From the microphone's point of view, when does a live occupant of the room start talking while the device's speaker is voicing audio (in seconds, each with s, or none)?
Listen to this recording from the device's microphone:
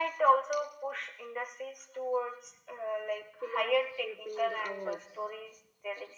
3.4 s